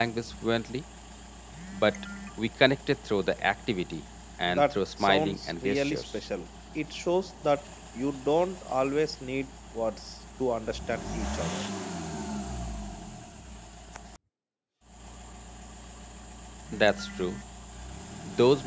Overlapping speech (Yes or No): Yes